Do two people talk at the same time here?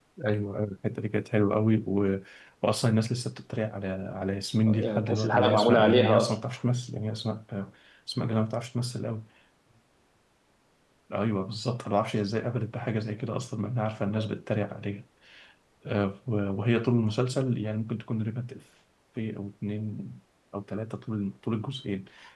Yes, from 4.7 s

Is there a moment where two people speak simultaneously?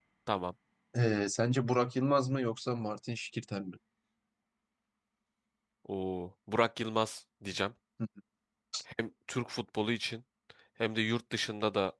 No

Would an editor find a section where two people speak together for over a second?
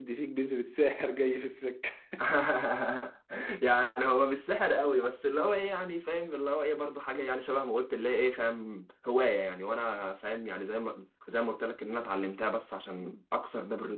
No

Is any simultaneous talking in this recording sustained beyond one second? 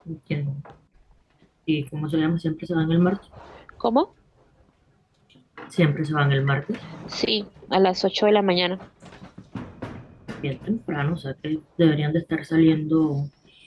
No

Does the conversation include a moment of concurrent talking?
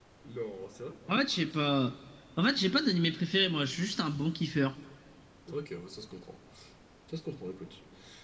No

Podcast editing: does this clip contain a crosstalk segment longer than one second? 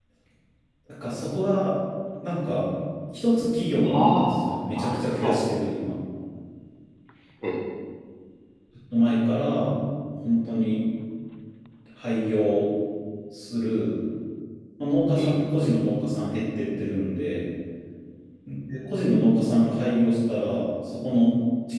Yes, from 3.9 s

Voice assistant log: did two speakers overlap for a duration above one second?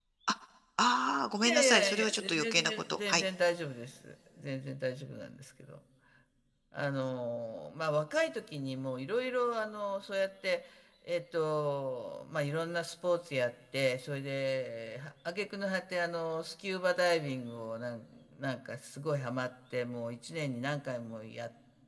Yes, from 1.4 s

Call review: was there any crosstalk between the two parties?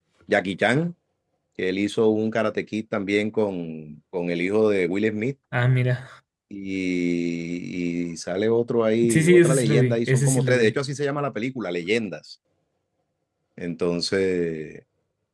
Yes, from 9.0 s

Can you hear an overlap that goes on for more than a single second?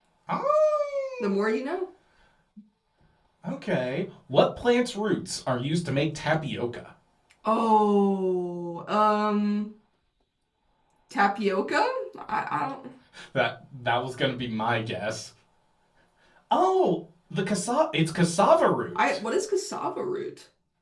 No

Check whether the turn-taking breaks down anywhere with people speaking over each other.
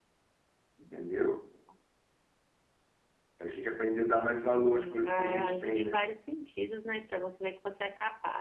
Yes, from 4.5 s

